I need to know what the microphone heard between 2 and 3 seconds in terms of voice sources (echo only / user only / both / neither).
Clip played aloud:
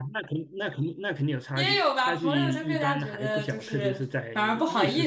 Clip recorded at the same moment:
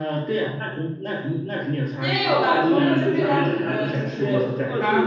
both